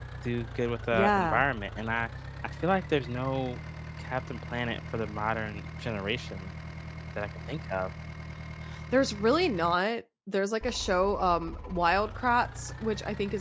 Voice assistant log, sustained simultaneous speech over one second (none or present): none